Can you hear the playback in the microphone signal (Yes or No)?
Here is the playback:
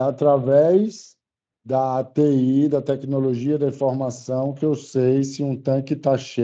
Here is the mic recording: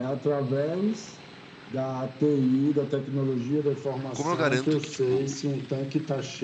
Yes